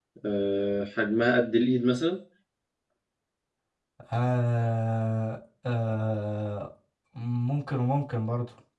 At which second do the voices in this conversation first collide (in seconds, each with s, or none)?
none